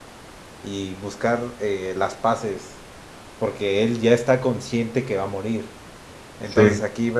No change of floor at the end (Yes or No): Yes